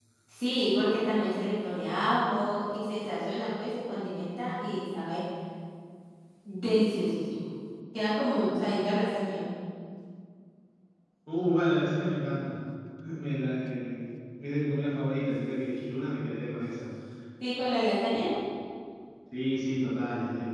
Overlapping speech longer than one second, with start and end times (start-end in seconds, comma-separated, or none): none